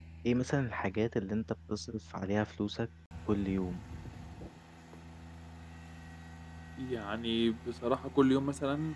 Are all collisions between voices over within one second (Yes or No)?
Yes